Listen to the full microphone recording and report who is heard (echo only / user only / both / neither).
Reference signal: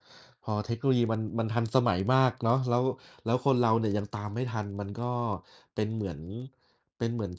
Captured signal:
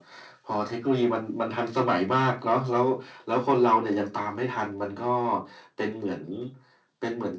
echo only